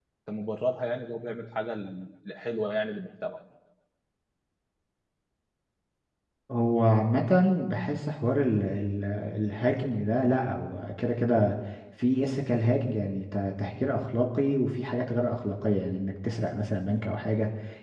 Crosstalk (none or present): none